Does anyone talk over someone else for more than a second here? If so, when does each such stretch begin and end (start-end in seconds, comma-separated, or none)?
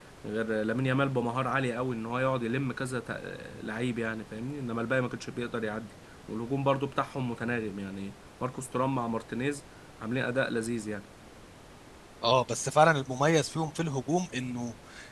none